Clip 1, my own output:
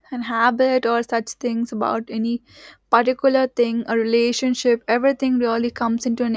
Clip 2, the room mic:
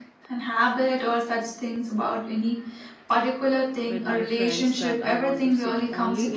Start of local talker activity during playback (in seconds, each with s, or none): 3.9 s